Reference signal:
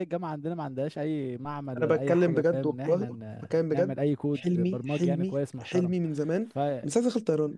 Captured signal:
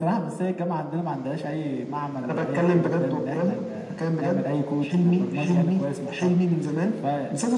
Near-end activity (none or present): none